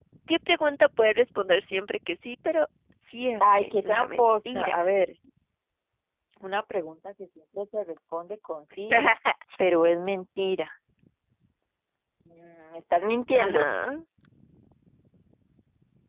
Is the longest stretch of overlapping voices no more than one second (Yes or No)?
No